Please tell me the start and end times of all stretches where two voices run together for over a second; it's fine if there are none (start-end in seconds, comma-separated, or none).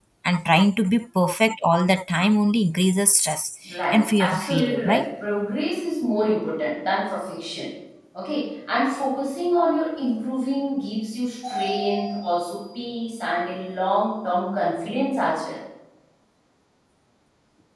3.7-5.0